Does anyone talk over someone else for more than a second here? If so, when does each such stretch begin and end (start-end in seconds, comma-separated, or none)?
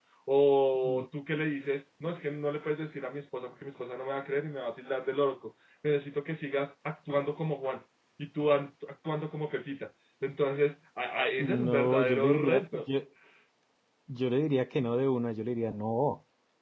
11.4-12.8